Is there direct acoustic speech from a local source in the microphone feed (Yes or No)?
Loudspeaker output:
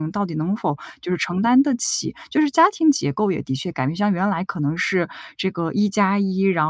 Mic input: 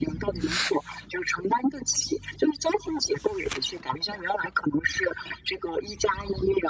No